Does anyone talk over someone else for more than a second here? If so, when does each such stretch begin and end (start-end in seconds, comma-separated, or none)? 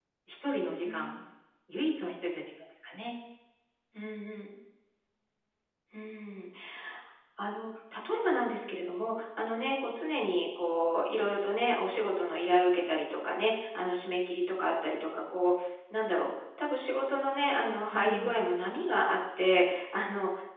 none